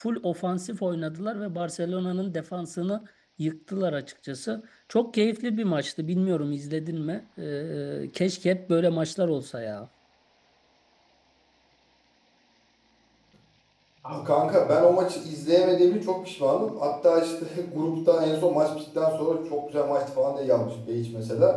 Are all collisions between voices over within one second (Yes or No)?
Yes